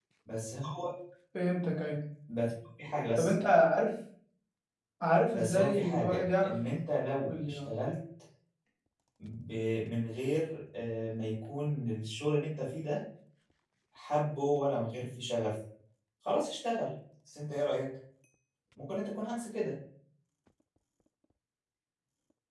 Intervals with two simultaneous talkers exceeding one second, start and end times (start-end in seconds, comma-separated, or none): 5.3-6.6